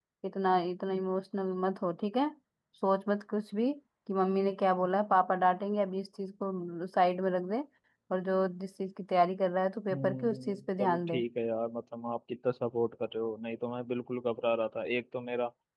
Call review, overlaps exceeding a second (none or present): present